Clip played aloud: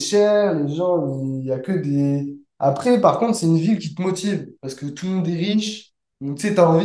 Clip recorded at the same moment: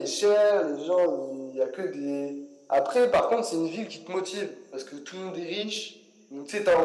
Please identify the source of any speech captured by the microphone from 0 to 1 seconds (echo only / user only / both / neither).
echo only